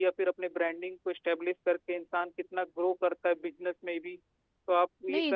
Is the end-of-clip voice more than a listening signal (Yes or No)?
Yes